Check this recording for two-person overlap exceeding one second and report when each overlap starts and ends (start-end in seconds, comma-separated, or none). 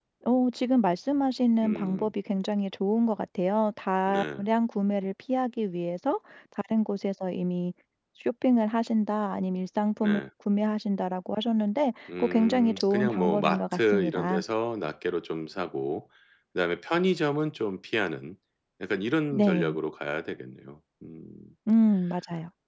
12.2-14.4